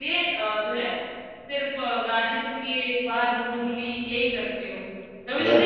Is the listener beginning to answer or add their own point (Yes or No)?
No